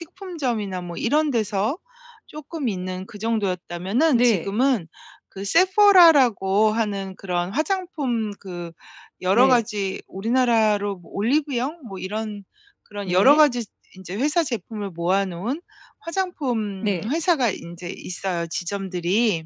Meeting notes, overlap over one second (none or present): none